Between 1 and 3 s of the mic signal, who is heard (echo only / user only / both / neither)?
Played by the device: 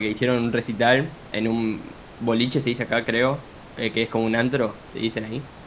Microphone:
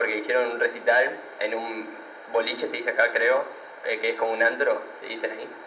echo only